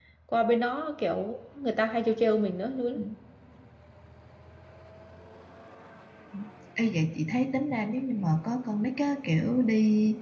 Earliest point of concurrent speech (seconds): none

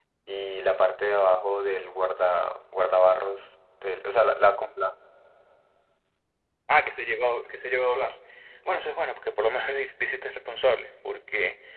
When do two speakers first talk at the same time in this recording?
none

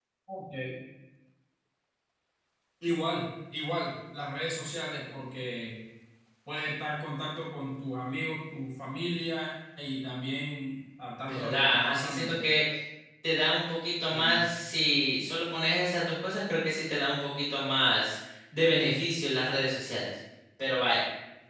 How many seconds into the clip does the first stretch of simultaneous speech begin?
11.3 s

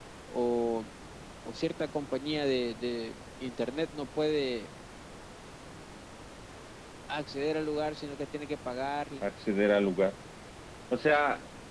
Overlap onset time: none

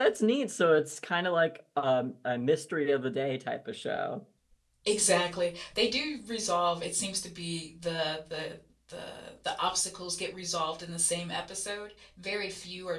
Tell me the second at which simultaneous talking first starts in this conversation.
none

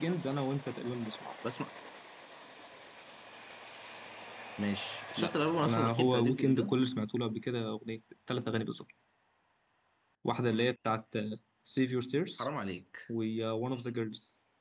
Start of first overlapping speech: 5.2 s

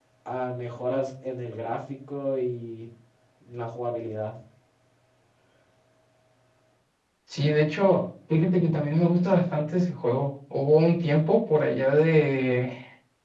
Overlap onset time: none

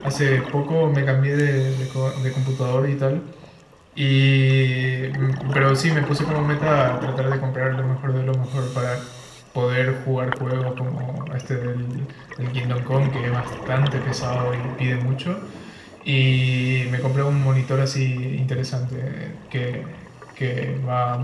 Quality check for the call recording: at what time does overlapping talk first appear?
none

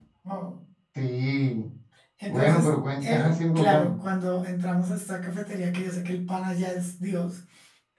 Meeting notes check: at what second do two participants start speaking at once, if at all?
2.3 s

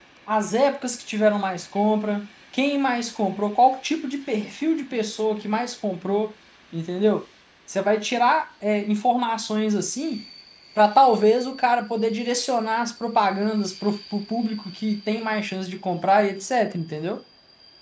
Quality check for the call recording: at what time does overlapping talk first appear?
none

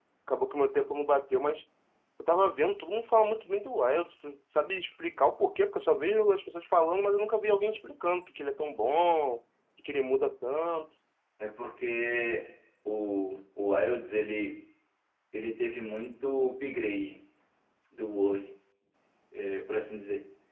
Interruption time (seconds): none

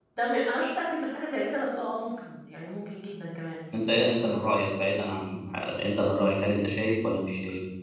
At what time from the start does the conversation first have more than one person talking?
none

